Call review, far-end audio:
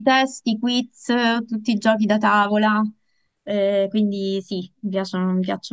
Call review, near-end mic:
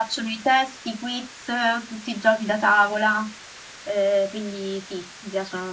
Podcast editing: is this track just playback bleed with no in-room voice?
Yes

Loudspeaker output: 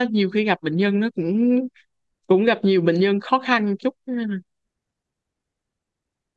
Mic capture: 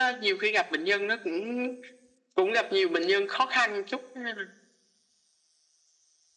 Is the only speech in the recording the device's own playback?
Yes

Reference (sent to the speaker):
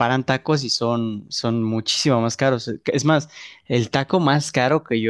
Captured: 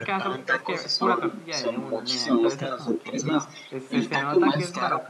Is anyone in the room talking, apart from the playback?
Yes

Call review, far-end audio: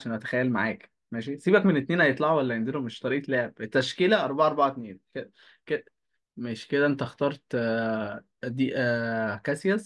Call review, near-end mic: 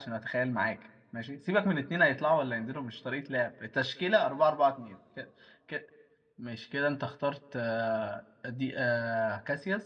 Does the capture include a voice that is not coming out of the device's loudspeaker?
No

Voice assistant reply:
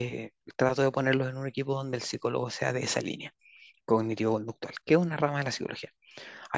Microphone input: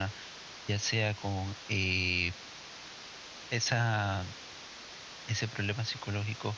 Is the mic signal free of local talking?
No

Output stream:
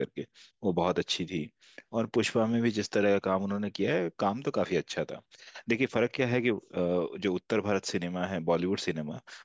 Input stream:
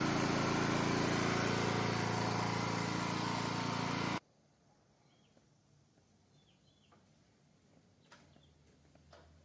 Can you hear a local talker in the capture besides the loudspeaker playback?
No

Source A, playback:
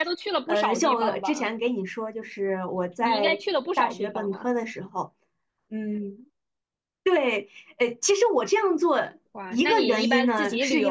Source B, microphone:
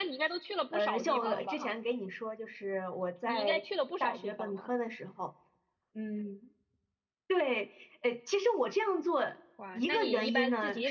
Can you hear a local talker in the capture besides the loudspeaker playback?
Yes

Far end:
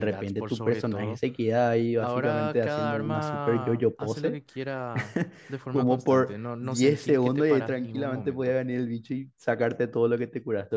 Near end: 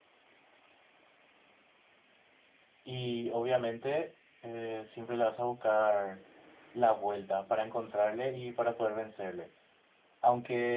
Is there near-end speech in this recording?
Yes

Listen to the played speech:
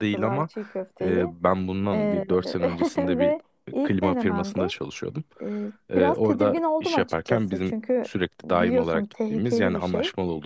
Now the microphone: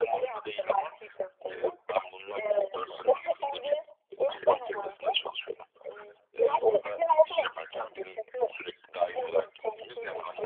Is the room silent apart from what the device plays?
Yes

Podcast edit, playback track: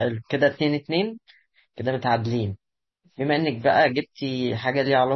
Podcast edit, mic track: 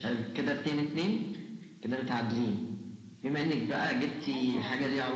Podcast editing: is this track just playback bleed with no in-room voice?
No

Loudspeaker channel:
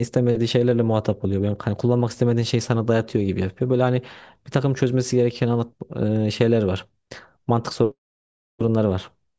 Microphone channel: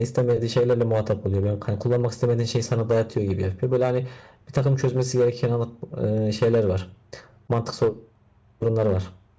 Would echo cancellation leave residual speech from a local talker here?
No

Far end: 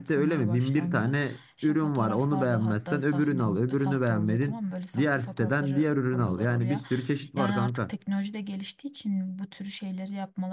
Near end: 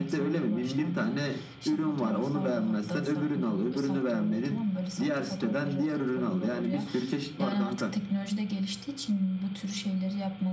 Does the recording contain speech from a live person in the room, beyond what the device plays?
No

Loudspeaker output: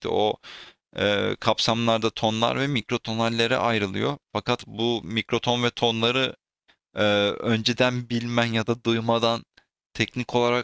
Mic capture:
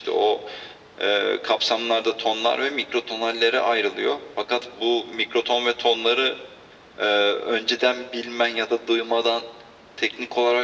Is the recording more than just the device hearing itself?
No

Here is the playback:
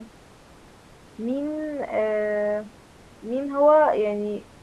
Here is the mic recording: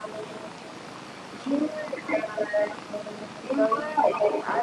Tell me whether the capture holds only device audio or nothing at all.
No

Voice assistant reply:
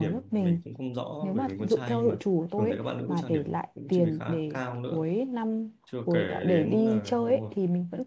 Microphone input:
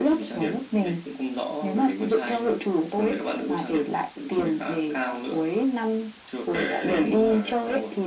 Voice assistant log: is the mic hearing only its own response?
Yes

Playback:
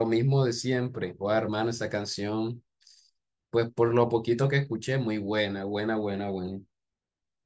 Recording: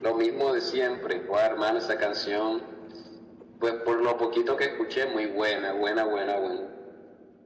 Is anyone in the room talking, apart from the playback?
No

